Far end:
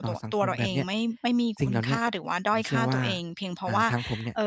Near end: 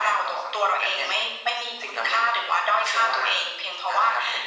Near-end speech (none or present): none